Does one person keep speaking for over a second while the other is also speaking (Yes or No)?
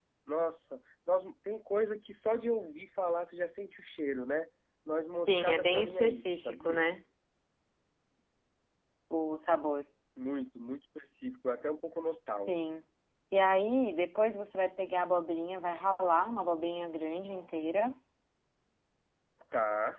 Yes